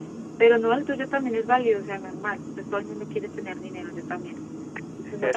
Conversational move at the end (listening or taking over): taking over